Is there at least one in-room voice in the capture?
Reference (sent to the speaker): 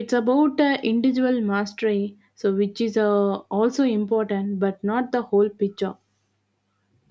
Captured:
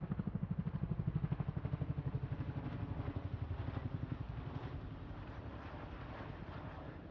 No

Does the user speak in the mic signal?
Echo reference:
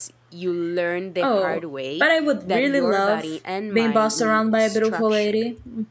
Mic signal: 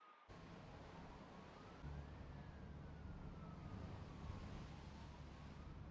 No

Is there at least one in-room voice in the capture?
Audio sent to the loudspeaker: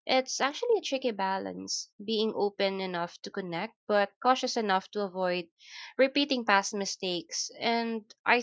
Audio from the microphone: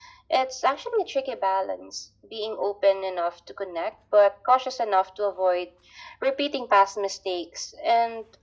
No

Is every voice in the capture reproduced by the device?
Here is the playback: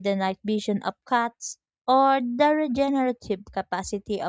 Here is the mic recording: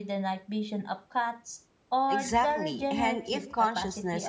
No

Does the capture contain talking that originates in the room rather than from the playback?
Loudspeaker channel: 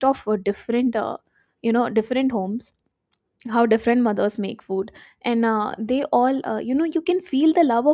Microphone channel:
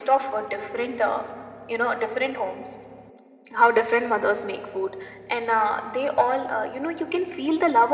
No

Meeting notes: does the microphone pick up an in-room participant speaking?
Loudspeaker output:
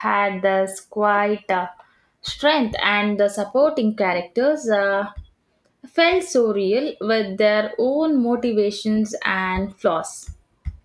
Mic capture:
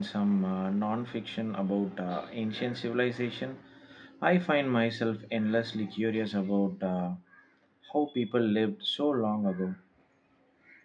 Yes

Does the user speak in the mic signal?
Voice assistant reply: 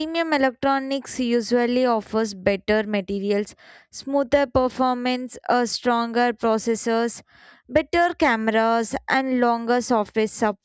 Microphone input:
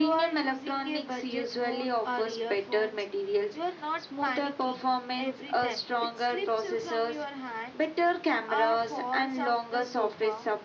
Yes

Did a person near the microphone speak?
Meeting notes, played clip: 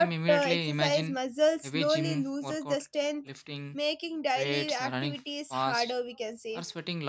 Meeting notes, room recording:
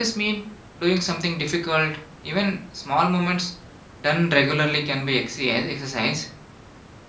Yes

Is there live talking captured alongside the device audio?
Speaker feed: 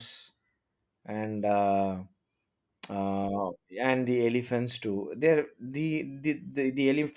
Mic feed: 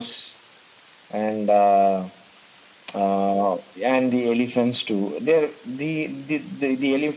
No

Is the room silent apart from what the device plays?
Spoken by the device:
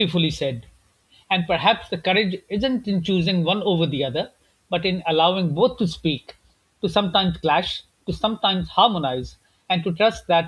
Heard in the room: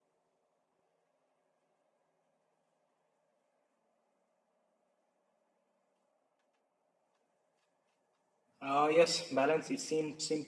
No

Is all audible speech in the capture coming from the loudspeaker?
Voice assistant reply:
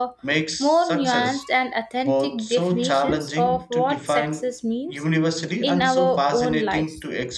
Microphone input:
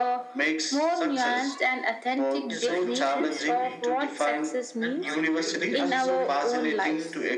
No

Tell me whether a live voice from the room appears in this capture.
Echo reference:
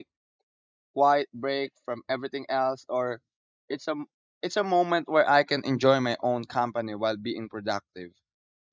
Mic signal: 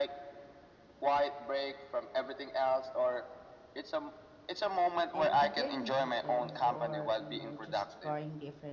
Yes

